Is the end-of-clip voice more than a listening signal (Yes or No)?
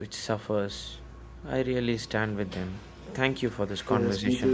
Yes